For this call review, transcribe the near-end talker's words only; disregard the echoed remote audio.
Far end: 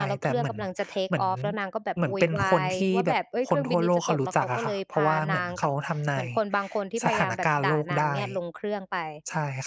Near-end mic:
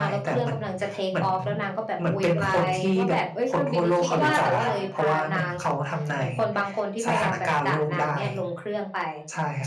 คิดว่า แต่ว่า

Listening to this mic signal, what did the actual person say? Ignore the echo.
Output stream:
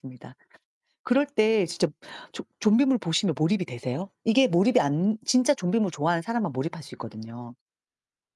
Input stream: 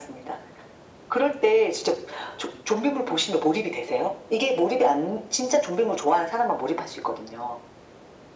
none

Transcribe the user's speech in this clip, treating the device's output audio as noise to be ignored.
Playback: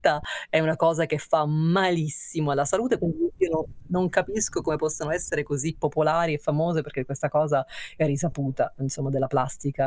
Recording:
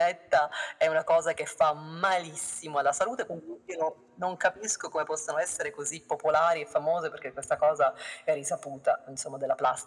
none

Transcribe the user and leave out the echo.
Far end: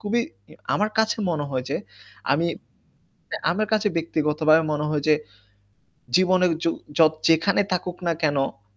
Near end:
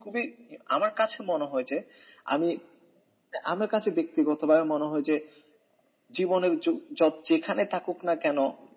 none

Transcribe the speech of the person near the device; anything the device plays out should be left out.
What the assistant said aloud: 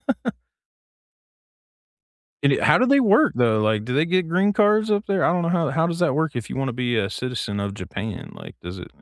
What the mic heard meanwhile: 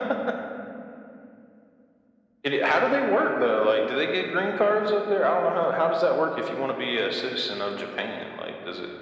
none

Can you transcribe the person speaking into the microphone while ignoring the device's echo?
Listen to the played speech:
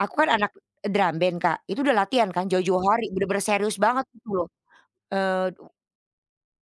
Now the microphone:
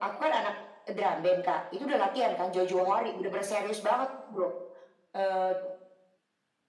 none

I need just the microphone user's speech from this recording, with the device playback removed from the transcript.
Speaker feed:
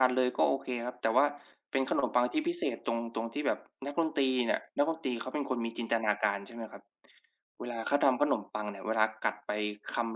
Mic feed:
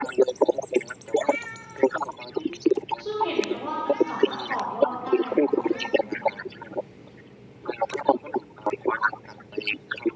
ซึ่งเห็นไหมว่า มันสามารถต่อยอดได้ เรื่องดนตรีอะ

